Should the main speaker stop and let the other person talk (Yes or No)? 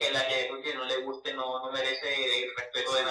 Yes